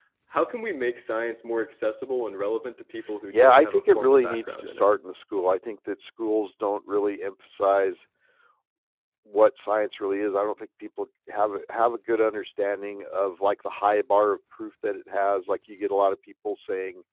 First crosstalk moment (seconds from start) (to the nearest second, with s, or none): 3 s